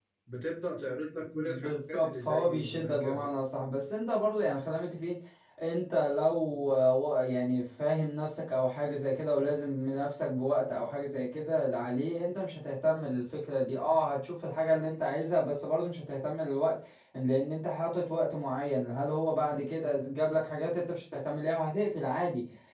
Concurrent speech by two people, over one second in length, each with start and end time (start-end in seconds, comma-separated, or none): 1.3-3.3